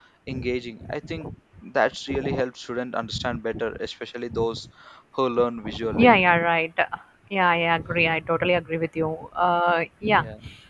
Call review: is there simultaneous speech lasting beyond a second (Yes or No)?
No